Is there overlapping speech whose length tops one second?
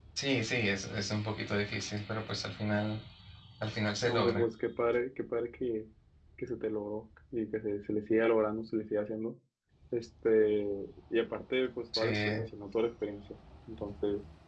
No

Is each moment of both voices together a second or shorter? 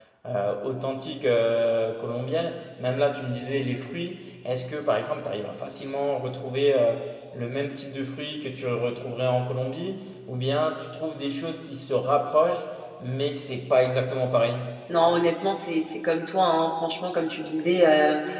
Yes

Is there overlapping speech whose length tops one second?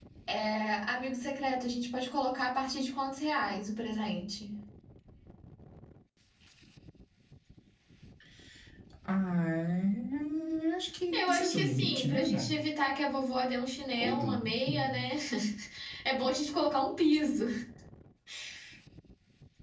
Yes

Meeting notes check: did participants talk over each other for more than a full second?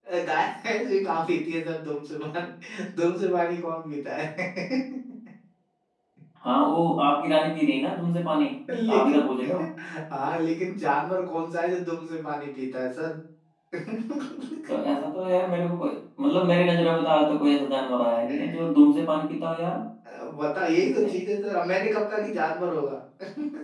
No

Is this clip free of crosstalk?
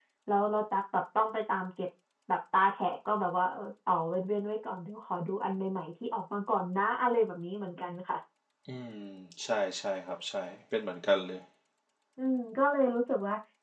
Yes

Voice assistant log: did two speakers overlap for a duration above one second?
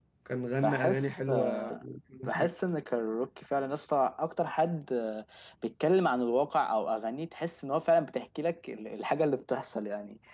Yes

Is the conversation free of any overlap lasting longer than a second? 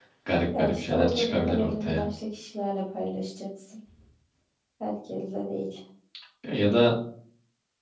No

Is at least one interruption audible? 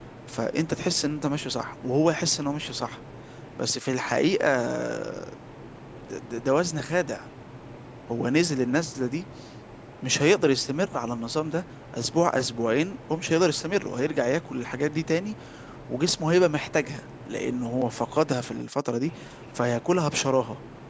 No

